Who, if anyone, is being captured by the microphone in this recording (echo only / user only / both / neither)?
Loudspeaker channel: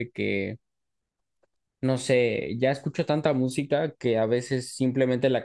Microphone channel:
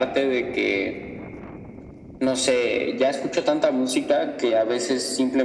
echo only